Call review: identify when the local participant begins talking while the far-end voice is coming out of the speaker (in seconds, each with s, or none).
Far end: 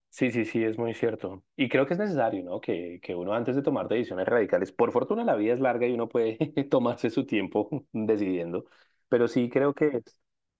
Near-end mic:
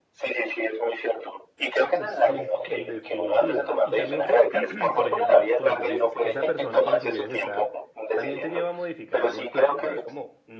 1.8 s